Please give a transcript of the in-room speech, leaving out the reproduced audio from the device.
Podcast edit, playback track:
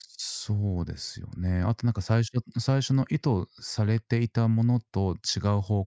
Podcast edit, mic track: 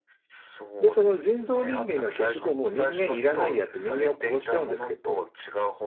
で、その人造人間が結局もう人間いらないやって人間を殺しちゃうんですけど、

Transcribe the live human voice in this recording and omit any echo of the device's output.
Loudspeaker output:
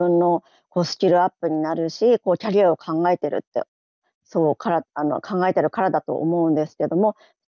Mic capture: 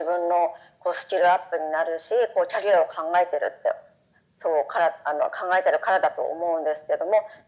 none

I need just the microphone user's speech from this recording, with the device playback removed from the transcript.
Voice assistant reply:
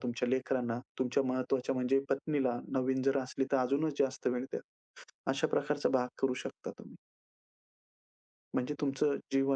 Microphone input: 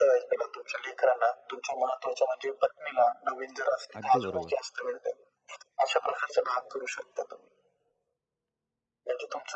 अगदी बरोबर.

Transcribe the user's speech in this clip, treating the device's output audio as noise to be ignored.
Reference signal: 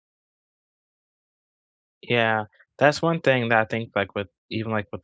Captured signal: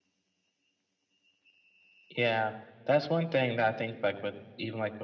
none

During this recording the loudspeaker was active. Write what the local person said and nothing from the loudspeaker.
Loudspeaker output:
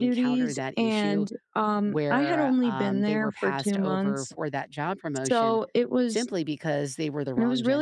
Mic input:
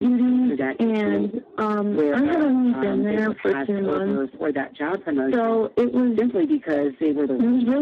none

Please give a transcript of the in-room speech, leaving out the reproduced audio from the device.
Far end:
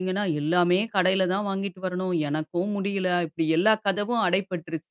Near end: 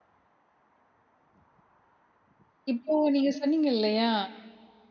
இப்போ நீங்க சொன்னீங்க இல்லையா,

